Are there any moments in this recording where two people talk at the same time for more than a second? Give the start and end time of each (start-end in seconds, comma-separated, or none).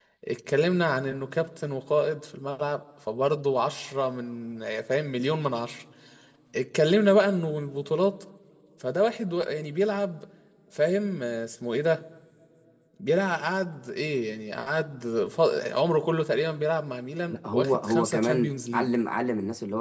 17.3-19.0